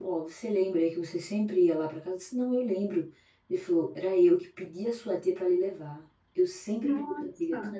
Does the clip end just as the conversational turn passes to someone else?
No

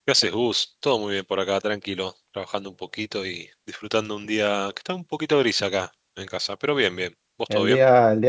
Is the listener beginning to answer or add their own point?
Yes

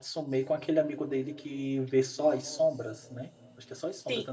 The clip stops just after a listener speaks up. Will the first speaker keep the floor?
No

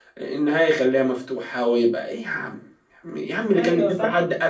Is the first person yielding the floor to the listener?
No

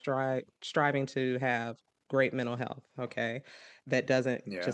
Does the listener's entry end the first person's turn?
No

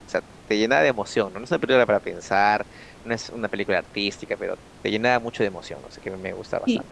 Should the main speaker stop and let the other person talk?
Yes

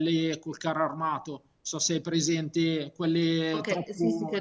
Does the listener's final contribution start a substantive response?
Yes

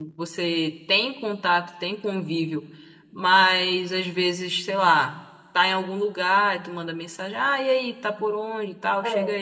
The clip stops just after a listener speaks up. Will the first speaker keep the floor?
Yes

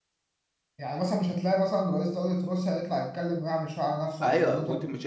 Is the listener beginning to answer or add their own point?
Yes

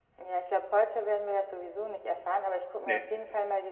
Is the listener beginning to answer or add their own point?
No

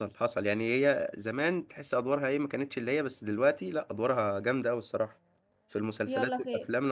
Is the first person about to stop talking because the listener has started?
Yes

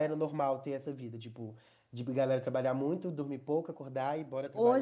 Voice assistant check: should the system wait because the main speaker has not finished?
No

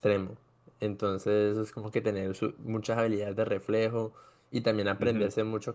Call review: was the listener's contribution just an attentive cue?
Yes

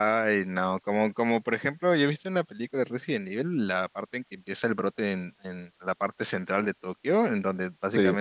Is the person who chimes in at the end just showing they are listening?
Yes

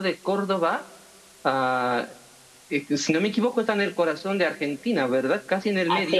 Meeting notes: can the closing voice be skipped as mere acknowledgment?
No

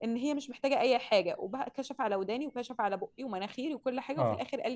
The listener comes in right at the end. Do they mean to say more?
No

